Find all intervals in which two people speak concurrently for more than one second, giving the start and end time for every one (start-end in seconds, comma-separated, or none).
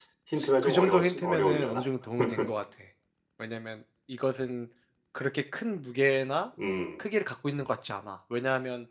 0.6-1.8